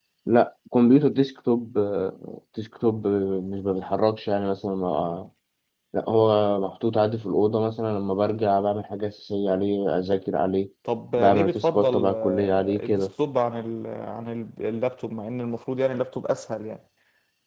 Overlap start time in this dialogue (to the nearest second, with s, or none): 11 s